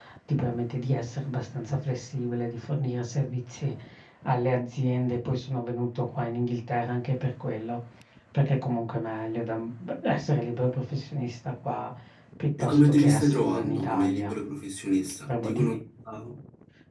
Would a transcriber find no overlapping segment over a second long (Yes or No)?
No